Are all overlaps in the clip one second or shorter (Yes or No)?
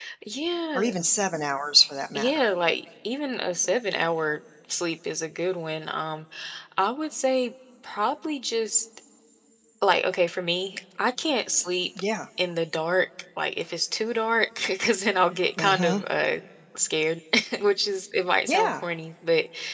Yes